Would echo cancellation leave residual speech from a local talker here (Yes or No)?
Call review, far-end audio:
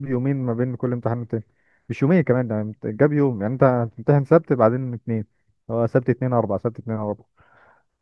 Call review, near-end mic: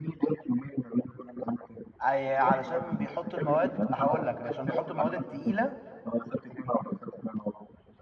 Yes